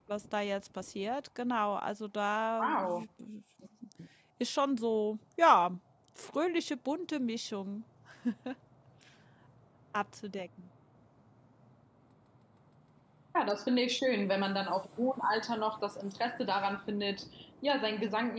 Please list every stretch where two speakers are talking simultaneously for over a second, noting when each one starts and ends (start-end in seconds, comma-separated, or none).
none